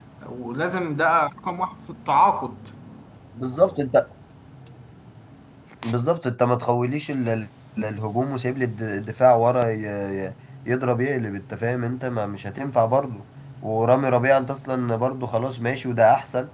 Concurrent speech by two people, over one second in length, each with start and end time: none

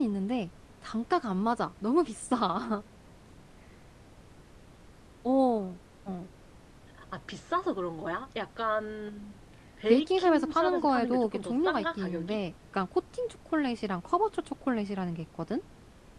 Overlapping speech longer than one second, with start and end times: 9.9-12.4

